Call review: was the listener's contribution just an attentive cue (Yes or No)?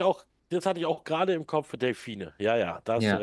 No